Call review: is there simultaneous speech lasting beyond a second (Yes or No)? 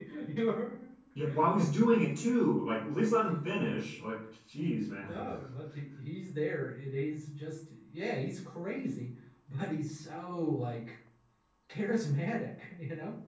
No